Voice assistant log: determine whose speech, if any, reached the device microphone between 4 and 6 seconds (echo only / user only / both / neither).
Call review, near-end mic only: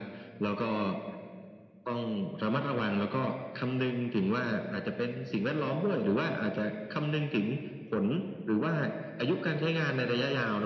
echo only